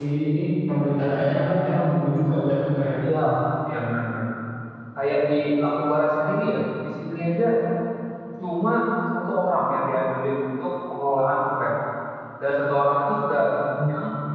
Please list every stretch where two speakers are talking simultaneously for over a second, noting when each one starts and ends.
none

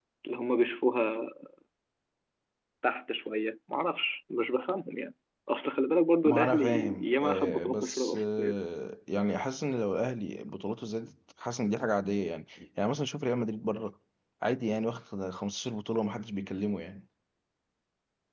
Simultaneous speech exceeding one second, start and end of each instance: 6.2-8.6

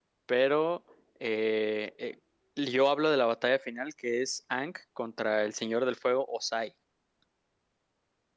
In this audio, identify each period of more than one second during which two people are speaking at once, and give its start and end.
none

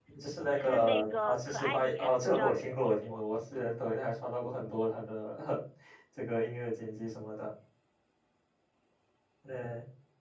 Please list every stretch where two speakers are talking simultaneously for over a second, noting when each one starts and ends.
0.5-3.2

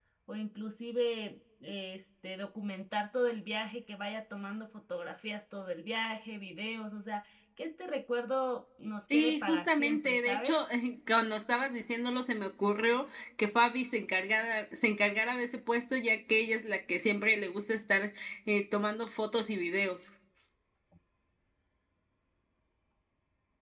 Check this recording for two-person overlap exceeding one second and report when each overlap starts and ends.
9.1-10.5

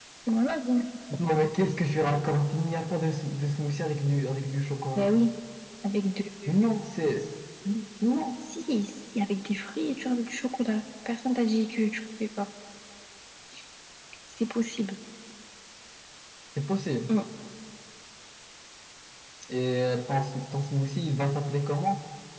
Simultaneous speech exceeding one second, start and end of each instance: none

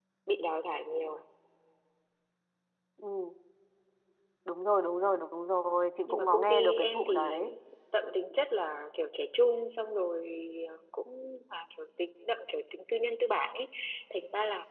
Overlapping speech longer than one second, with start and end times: 6.1-7.3

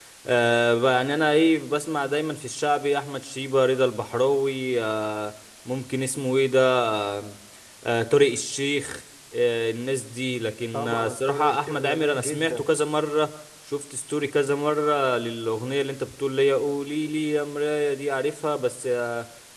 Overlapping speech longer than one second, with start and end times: 10.7-12.7

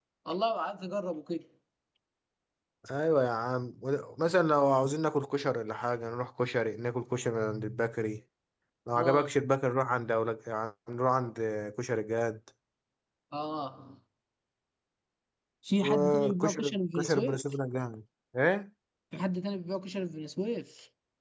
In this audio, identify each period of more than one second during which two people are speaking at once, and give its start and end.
15.8-17.4

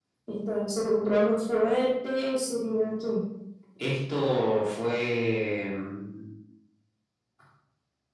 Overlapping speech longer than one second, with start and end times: none

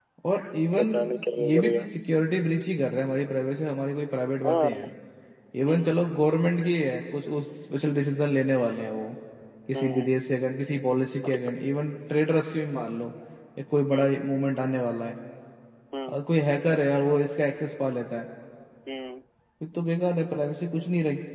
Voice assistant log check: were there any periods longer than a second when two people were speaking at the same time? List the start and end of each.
none

